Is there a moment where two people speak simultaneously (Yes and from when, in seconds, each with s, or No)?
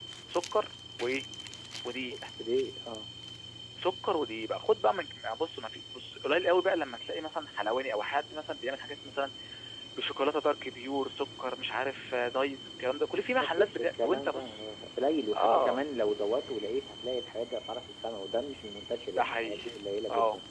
Yes, from 13.4 s